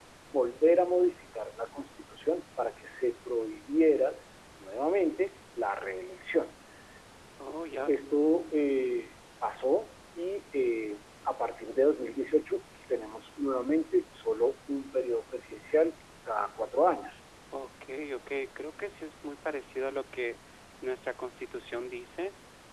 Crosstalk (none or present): none